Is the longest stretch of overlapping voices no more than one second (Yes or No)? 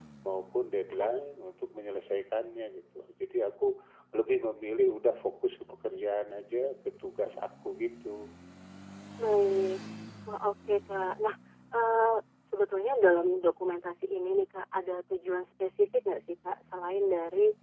Yes